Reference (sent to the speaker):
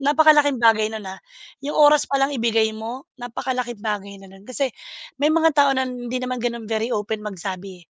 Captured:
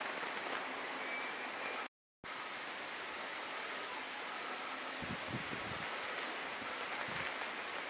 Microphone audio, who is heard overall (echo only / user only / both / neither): neither